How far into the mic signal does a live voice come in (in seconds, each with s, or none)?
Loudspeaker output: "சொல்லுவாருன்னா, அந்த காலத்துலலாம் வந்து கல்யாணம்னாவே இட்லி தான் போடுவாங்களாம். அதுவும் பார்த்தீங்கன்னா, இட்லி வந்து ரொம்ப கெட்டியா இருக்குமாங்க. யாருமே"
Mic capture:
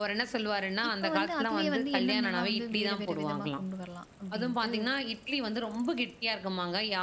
0.9 s